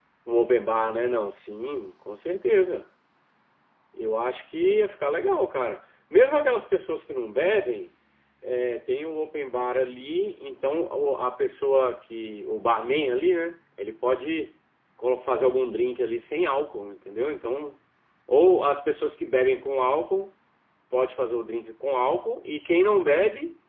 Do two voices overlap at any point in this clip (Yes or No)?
No